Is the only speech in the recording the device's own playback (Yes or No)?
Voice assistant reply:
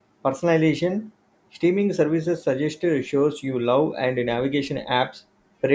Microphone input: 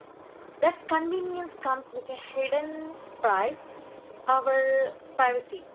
No